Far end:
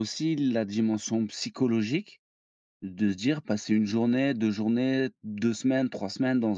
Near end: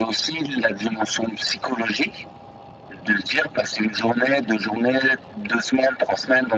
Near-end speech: none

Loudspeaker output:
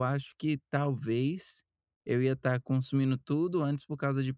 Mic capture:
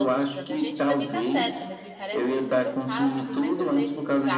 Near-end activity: present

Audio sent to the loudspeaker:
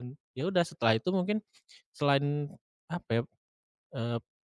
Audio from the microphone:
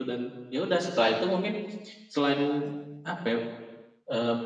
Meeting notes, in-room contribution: none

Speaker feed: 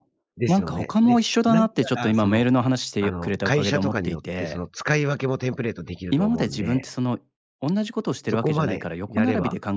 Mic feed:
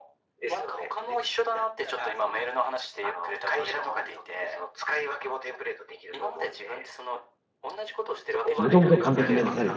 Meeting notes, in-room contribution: present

